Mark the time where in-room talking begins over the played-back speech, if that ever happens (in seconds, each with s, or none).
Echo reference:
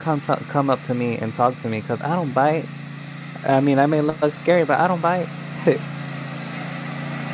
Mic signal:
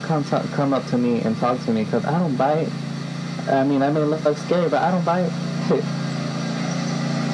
none